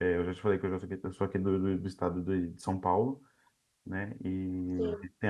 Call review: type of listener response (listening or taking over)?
listening